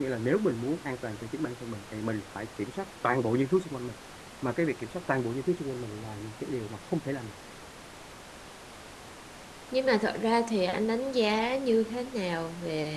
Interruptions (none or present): none